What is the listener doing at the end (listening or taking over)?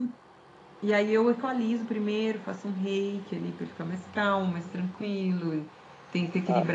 listening